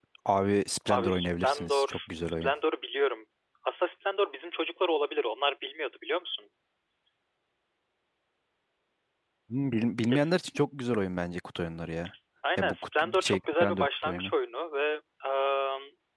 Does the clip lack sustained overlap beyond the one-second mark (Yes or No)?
No